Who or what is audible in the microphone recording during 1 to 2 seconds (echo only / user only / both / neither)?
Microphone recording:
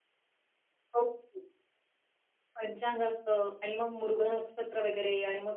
user only